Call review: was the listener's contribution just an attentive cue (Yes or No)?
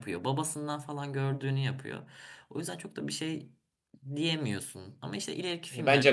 No